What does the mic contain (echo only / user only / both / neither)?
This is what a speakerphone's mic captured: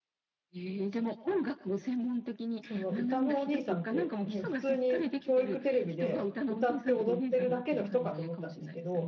both